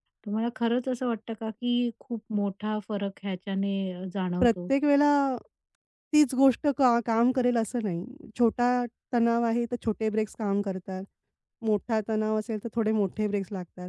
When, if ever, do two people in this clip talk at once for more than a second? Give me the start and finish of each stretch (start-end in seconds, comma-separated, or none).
none